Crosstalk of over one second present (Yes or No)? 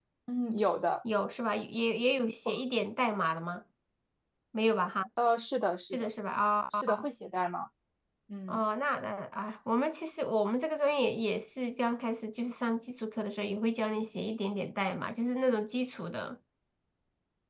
No